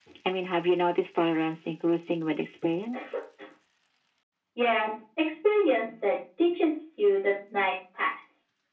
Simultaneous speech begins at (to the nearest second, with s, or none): none